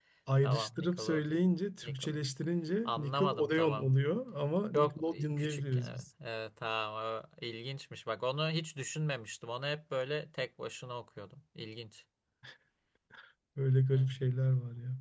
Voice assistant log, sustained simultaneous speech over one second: present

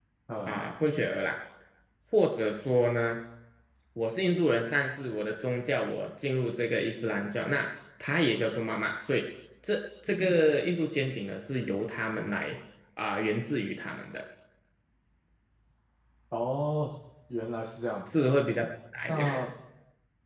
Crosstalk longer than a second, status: none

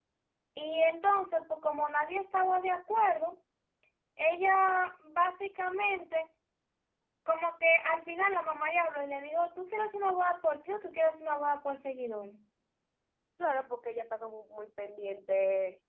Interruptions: none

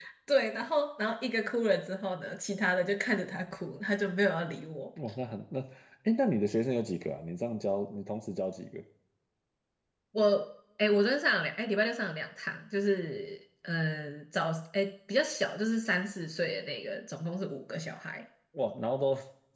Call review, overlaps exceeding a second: none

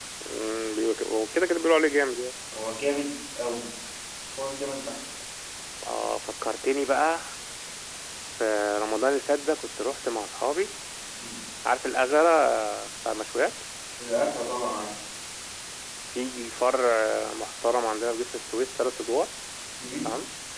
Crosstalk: none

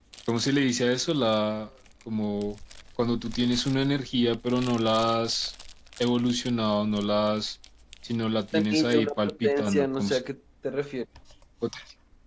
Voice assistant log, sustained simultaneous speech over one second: present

